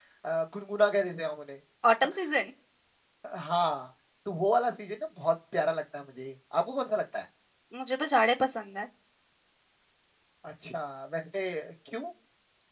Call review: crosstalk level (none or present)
none